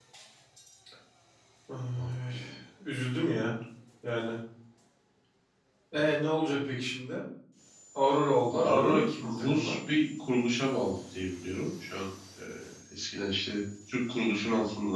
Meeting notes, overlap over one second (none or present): present